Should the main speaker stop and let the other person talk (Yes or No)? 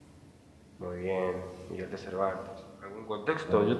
No